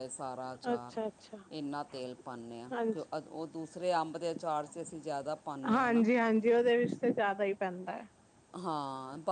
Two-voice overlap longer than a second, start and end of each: none

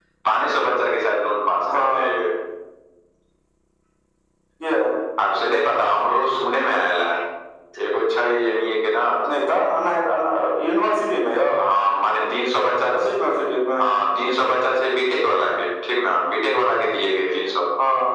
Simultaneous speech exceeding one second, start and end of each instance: none

